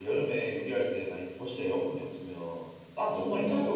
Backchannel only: No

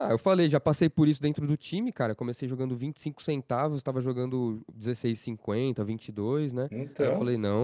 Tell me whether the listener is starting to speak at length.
No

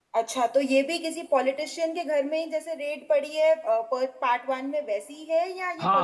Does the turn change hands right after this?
Yes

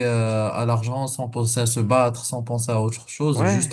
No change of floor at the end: Yes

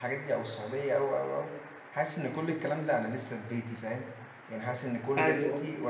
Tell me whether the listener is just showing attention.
Yes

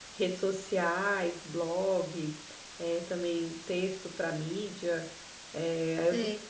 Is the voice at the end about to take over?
No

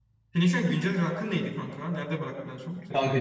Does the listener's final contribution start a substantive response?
Yes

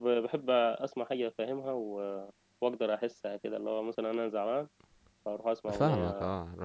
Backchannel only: No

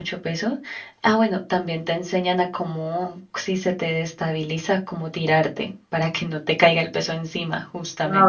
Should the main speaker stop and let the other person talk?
Yes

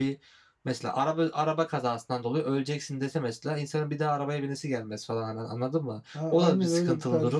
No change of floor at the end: No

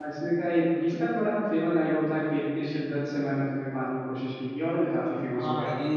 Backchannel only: No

